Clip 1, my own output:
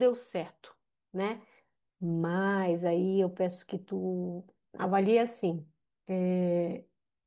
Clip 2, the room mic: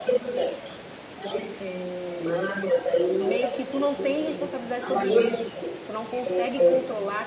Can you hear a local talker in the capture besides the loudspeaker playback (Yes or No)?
Yes